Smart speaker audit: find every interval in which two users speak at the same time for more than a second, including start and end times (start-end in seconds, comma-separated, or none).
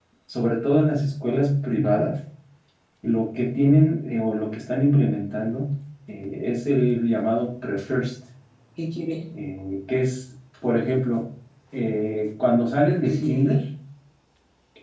none